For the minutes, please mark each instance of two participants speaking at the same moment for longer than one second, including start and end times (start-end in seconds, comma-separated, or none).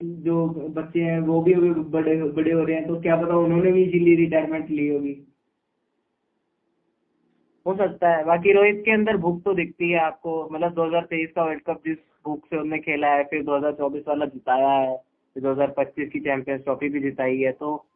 none